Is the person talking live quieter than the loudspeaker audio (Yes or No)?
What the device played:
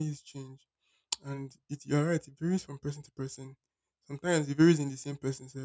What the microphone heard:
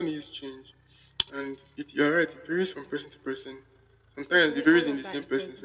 Yes